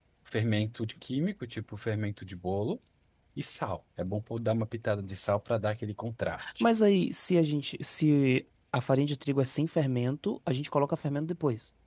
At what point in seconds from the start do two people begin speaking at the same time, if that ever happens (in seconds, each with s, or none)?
none